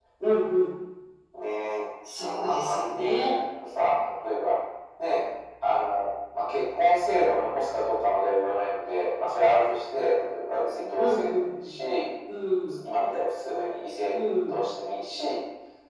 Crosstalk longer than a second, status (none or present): present